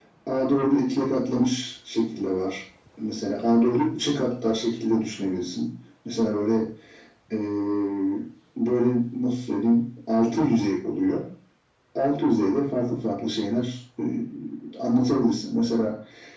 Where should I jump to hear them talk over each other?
none

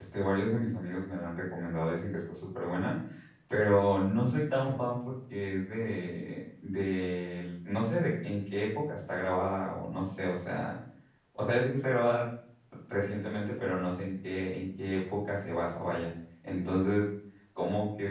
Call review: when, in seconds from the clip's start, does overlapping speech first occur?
none

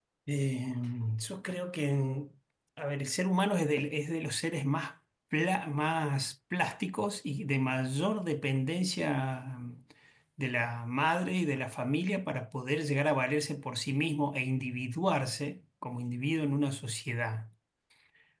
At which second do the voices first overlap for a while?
none

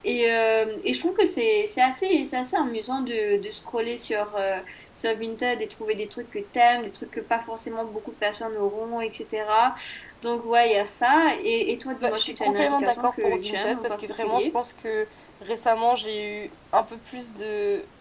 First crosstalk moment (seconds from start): 12.0 s

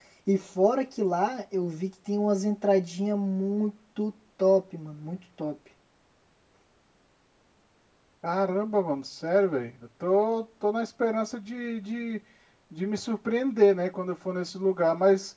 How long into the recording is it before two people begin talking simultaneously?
none

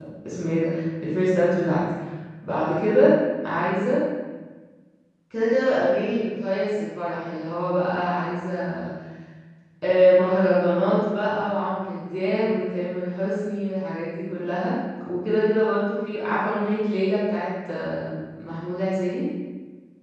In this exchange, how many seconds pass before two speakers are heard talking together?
none

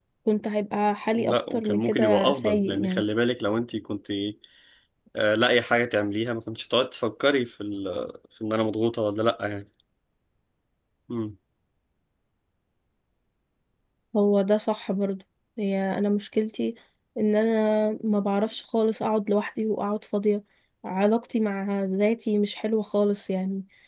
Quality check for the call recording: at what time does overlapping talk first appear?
1.3 s

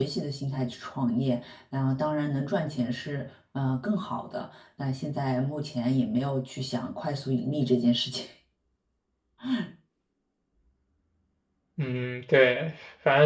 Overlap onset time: none

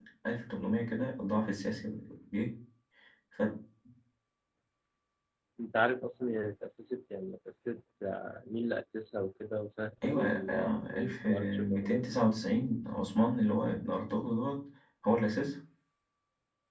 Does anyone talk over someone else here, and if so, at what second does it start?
10.0 s

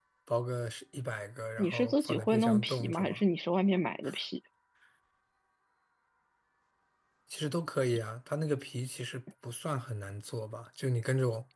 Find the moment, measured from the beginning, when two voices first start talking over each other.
1.6 s

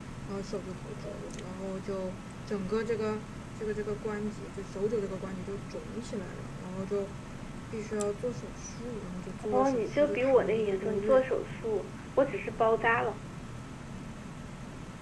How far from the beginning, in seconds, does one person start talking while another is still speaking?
9.4 s

